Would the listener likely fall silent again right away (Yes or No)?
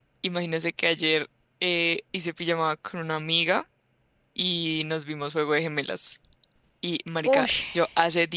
Yes